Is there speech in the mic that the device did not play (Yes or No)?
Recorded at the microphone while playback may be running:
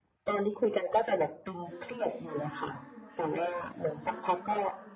Yes